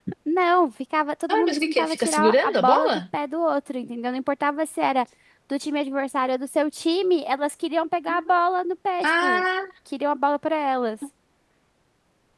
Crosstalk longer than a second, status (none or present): present